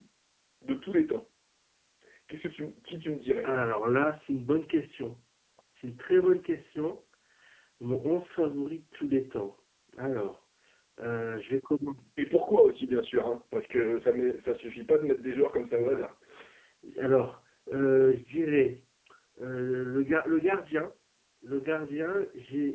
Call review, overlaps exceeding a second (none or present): none